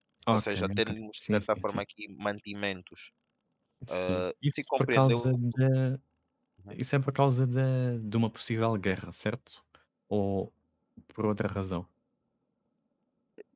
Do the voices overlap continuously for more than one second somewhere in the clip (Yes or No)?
Yes